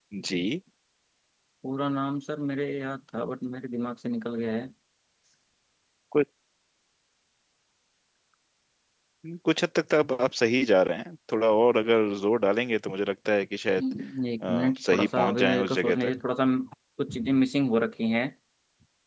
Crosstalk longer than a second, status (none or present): present